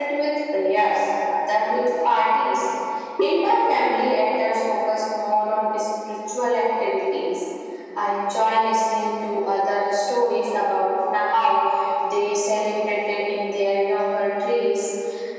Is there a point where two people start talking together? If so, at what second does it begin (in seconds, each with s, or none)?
none